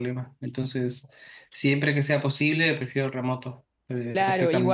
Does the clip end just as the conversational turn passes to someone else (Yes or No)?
Yes